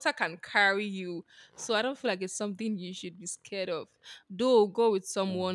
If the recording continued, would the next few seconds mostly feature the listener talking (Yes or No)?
No